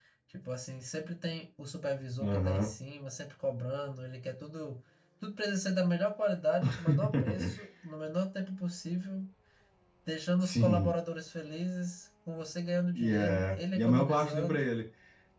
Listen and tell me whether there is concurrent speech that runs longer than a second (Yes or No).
Yes